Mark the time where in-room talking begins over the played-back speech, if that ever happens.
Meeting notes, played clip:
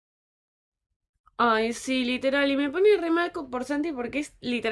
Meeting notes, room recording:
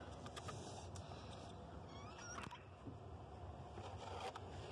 none

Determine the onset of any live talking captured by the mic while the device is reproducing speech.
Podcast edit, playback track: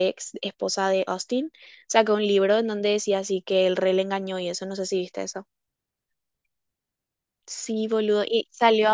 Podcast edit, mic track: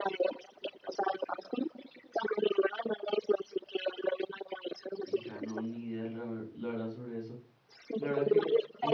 5 s

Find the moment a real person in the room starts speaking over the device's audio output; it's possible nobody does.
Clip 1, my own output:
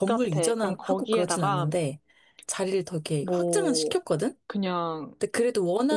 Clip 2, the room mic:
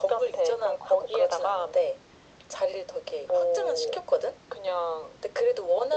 none

